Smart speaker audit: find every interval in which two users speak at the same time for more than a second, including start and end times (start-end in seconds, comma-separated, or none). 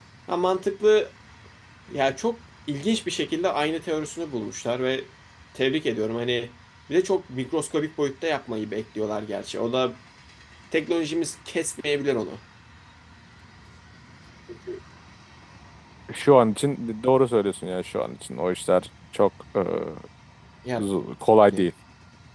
none